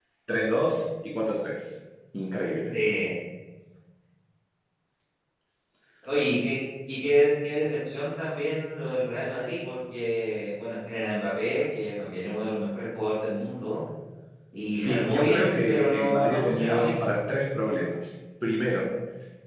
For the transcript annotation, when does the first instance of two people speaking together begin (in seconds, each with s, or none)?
14.7 s